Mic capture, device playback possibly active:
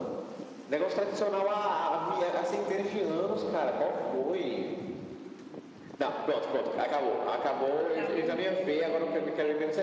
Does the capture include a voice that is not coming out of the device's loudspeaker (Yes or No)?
Yes